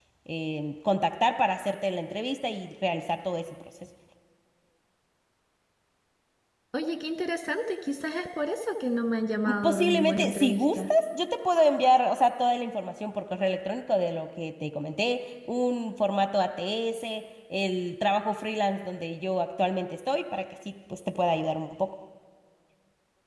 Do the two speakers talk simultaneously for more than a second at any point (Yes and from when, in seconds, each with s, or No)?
Yes, from 9.4 s